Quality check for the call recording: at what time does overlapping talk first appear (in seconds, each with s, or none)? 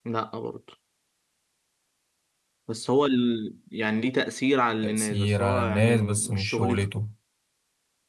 4.8 s